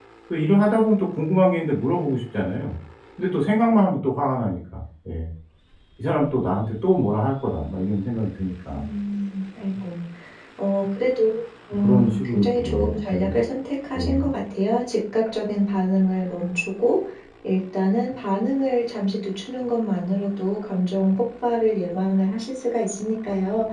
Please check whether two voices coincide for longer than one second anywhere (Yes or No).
Yes